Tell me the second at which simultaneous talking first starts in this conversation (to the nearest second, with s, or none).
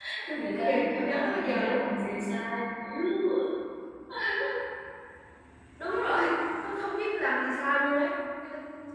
1 s